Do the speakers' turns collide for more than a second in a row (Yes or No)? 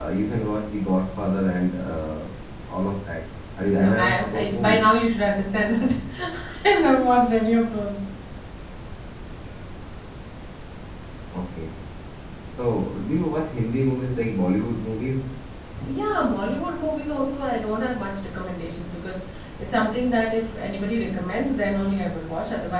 Yes